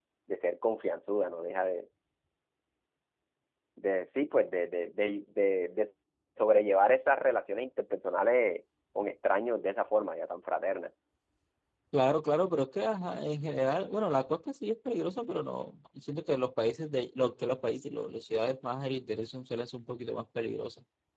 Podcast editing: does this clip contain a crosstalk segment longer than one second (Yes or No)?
No